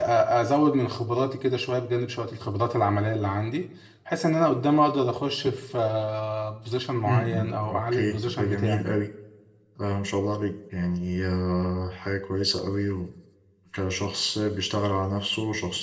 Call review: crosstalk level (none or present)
present